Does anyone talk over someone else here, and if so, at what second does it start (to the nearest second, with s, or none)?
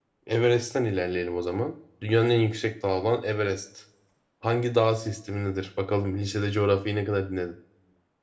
none